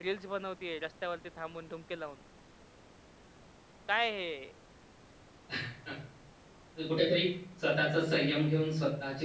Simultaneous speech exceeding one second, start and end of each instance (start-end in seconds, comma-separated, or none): none